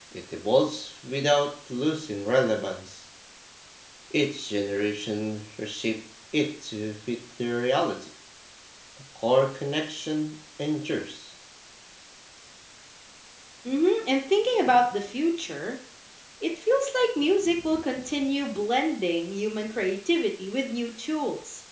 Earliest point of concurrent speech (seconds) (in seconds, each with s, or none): none